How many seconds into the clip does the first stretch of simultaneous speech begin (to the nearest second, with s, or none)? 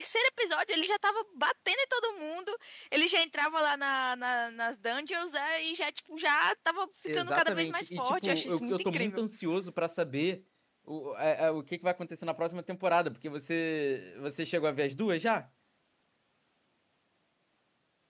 7 s